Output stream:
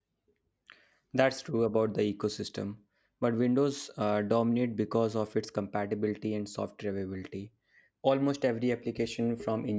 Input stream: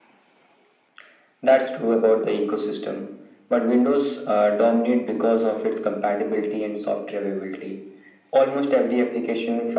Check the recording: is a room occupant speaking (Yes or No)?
No